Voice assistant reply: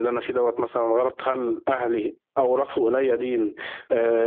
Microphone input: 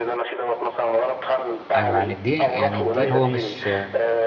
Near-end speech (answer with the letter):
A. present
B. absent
A